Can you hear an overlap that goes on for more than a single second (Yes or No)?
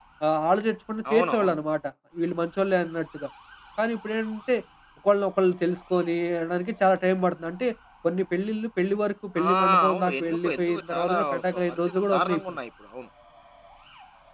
Yes